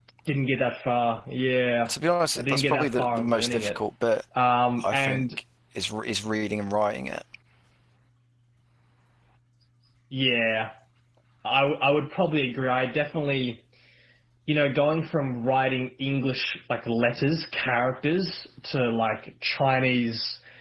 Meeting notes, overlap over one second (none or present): present